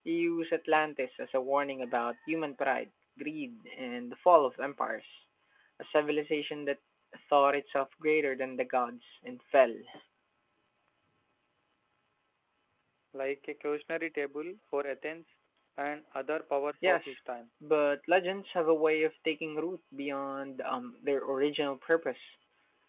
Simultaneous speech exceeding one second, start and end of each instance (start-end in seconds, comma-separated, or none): none